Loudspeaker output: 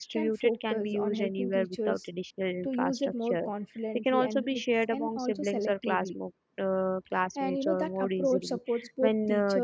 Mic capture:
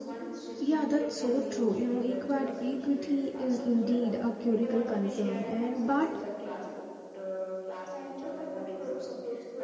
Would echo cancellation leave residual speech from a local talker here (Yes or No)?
Yes